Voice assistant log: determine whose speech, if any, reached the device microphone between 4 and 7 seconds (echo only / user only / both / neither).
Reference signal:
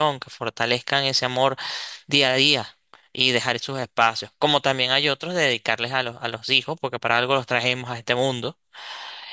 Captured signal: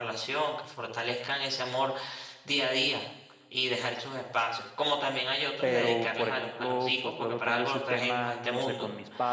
both